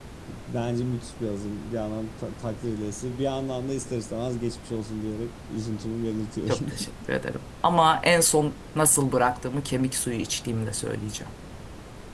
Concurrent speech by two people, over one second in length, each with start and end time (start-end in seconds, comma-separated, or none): none